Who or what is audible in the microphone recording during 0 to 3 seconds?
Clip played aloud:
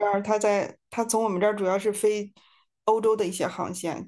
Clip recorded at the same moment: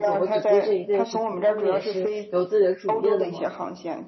both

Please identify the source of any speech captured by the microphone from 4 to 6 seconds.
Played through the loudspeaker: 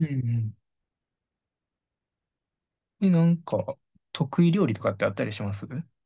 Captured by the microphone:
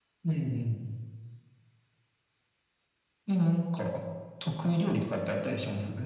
echo only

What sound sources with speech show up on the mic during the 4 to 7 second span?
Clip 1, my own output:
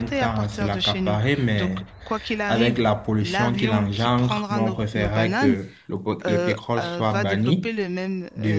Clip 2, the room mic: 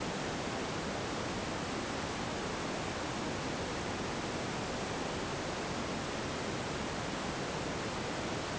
neither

